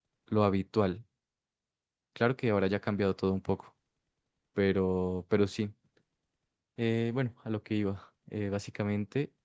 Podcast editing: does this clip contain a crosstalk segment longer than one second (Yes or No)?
No